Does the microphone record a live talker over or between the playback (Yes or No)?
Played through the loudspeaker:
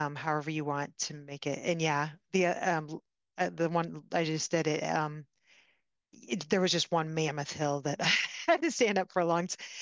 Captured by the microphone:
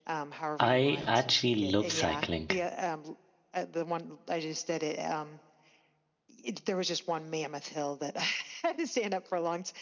Yes